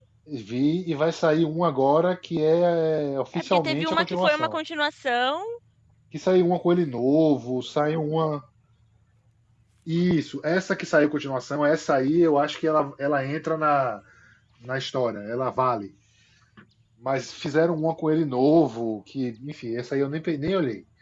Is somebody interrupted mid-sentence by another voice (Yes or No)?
Yes